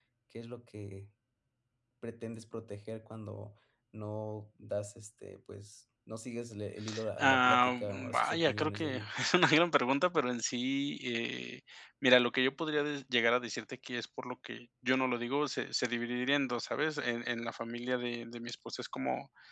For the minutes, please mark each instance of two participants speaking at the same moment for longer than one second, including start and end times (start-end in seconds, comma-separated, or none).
7.2-9.1